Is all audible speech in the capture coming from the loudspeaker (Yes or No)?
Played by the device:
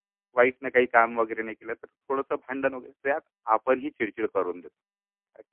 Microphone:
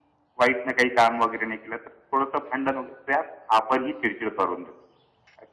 Yes